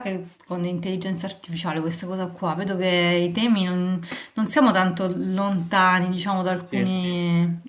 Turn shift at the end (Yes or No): No